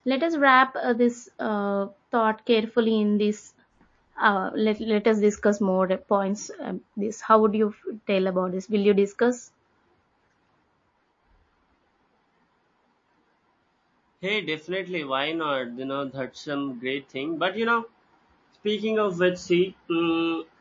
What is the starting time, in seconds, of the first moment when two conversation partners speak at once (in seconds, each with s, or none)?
none